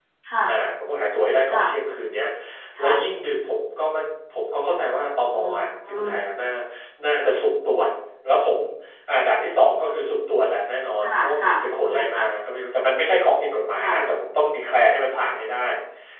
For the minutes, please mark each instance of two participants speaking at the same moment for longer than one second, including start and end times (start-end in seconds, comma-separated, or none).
11.0-12.3